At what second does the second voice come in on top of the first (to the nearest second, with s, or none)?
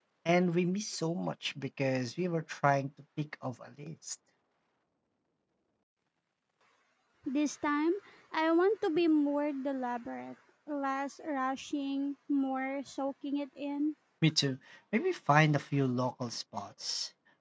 none